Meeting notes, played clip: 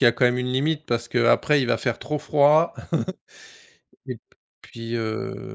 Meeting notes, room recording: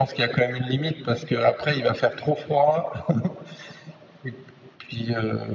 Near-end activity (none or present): none